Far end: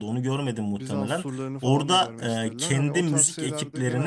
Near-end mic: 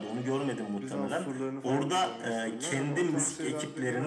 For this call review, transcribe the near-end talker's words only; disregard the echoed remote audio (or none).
none